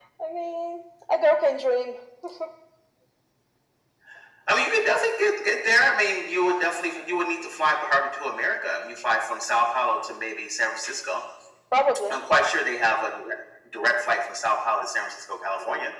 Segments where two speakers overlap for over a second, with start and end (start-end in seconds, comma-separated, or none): none